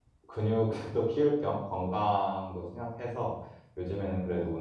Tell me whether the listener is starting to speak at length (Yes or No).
No